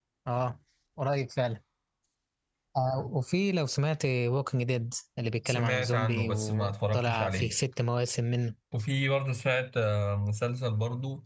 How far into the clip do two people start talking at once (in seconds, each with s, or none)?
5.5 s